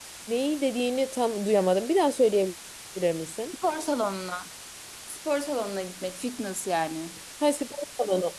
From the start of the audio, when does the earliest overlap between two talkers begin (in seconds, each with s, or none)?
none